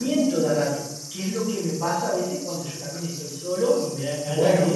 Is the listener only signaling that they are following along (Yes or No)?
No